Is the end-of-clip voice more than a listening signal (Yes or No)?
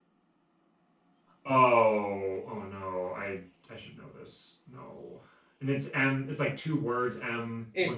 Yes